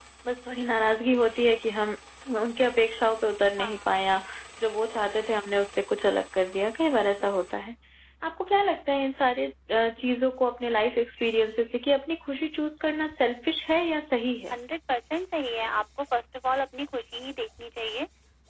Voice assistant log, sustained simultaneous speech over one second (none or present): none